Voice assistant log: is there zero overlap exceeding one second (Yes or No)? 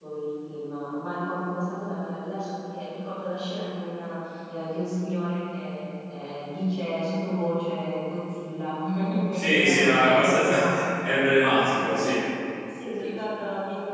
No